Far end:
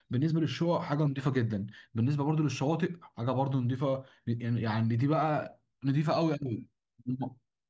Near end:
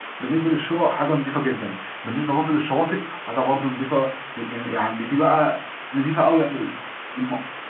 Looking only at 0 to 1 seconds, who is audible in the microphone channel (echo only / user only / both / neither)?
echo only